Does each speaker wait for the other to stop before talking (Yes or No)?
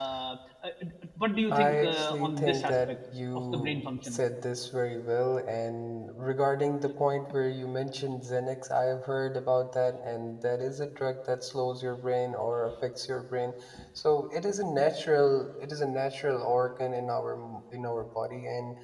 No